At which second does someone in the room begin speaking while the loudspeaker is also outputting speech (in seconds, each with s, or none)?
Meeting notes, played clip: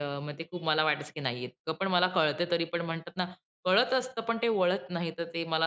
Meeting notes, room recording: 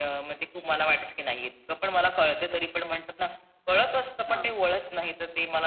4.3 s